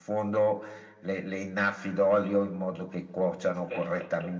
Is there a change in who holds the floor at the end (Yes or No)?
No